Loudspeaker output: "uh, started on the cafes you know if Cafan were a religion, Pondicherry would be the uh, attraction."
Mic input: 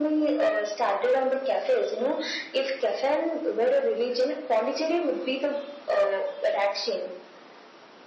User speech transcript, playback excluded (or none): none